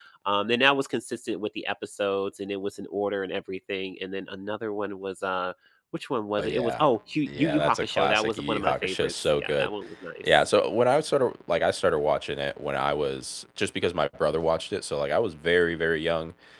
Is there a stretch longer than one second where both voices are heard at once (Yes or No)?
Yes